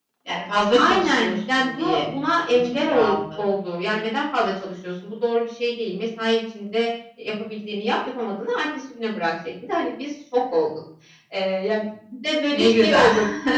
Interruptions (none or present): present